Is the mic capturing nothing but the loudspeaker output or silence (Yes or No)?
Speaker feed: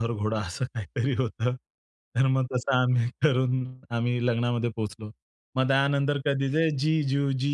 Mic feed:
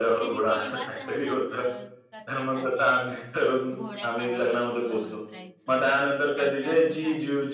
No